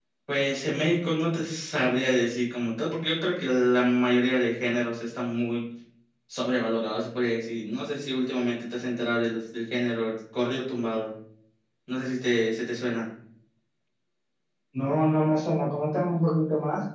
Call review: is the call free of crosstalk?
Yes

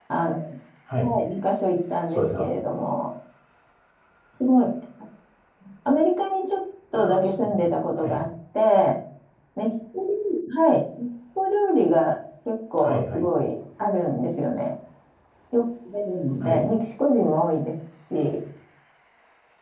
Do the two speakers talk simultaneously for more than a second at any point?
Yes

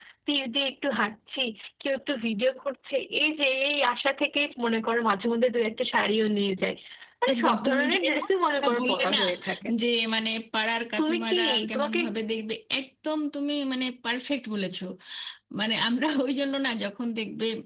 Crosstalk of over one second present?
Yes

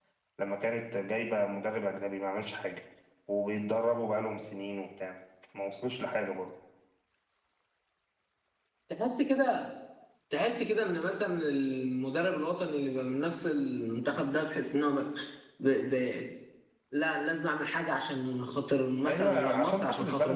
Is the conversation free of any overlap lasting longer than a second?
No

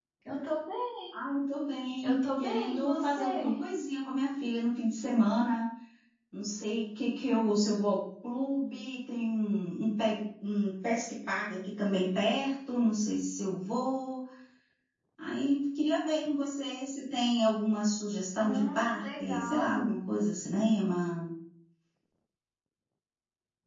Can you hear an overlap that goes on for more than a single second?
Yes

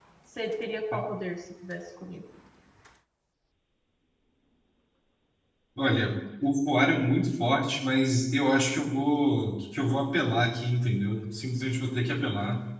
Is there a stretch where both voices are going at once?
No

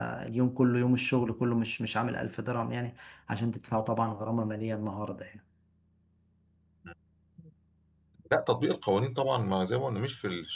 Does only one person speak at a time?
Yes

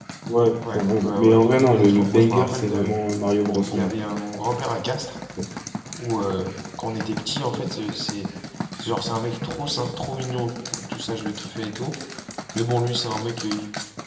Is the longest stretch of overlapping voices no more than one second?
No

